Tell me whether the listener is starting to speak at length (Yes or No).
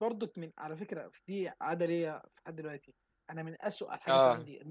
No